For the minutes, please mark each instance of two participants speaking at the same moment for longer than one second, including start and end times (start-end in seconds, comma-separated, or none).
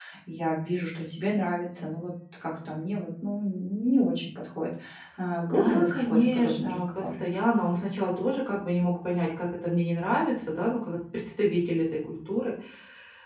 5.5-7.0